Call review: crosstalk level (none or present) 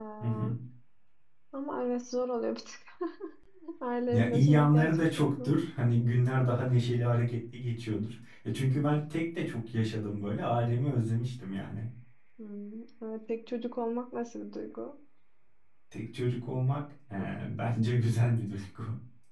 present